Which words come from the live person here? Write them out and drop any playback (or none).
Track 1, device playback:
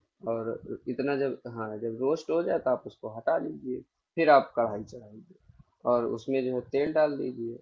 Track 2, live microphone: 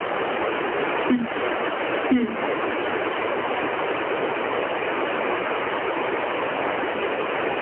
हम्म हम्म,